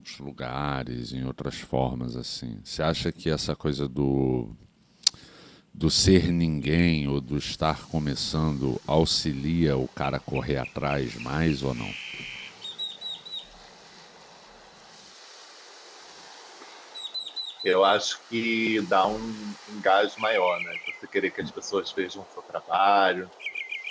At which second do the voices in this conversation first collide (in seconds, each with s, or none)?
none